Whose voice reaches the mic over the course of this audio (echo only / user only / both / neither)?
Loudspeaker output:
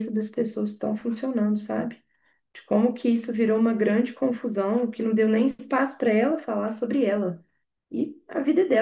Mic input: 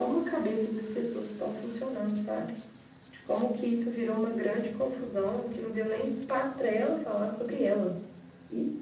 echo only